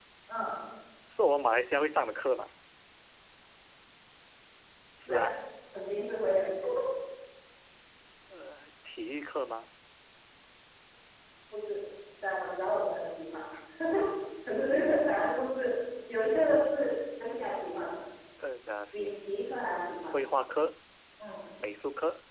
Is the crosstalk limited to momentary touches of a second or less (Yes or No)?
Yes